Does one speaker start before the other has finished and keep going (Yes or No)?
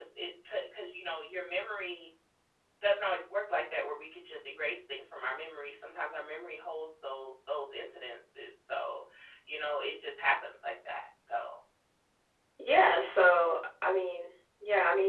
No